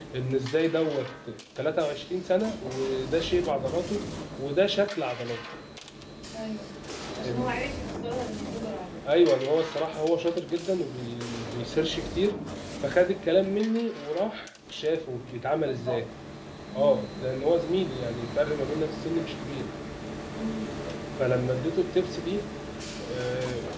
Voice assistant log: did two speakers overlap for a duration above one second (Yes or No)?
No